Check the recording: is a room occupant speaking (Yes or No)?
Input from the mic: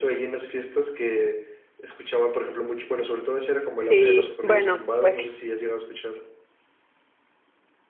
Yes